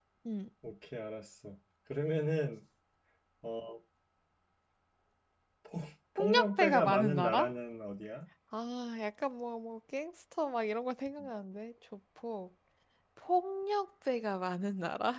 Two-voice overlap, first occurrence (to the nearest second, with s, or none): 6 s